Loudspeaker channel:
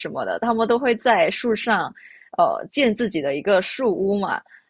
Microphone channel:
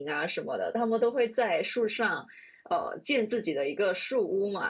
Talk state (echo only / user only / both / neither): echo only